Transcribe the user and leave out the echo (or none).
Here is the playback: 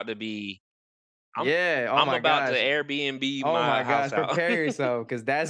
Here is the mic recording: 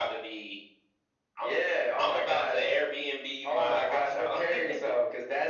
none